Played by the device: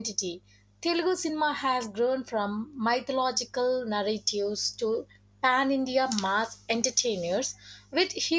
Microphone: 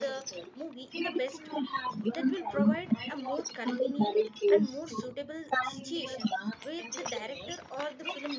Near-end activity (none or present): present